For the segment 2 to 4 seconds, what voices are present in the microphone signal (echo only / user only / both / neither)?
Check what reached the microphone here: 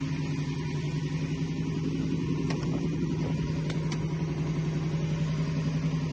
neither